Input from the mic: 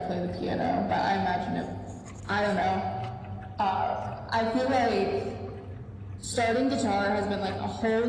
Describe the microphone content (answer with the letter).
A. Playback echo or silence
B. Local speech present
A